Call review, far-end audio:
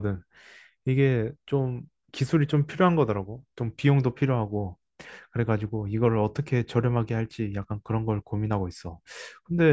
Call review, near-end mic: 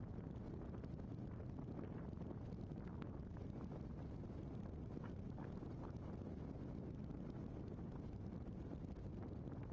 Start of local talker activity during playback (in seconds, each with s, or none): none